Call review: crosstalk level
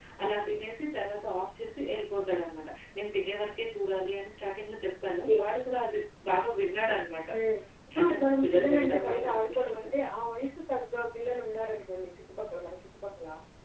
present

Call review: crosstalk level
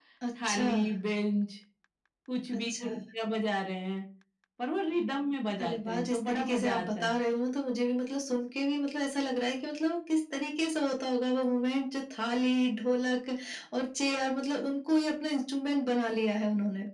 present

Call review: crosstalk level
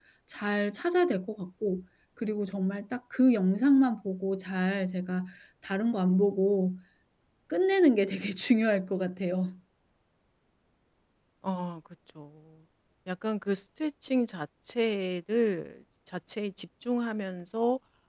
none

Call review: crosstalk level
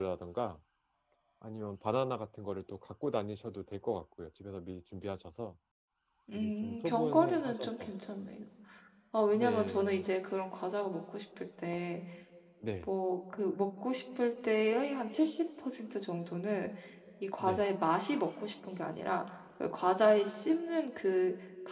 present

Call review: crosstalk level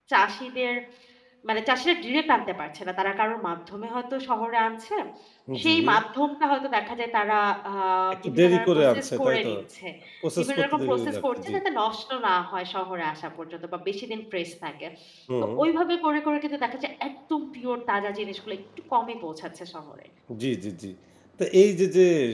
present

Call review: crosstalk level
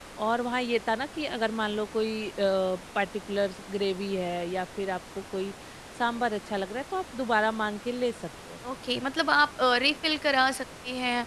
none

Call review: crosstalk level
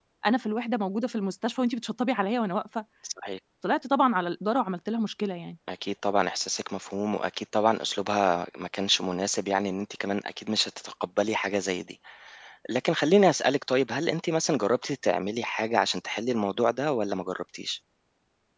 none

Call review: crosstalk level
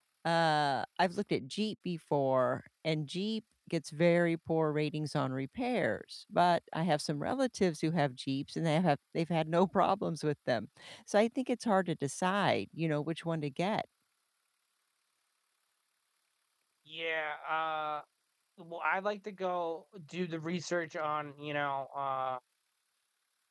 none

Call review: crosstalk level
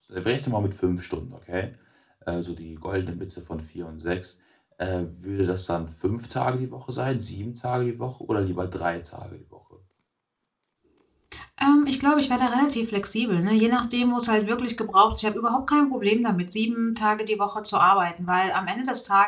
none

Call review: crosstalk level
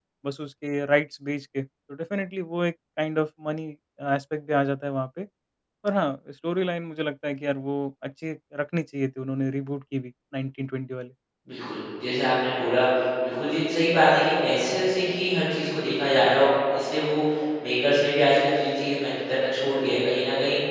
none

